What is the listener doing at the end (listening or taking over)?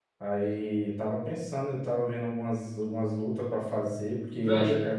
taking over